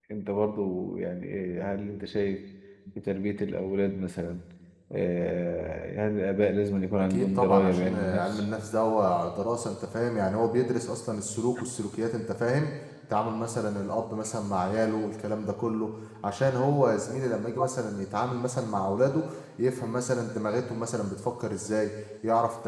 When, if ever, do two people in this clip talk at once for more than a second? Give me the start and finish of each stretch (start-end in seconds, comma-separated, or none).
7.0-8.4